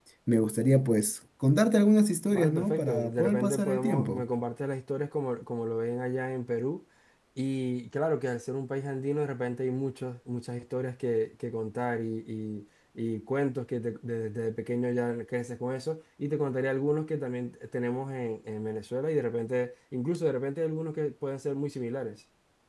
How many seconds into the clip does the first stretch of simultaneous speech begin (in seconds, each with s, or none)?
2.3 s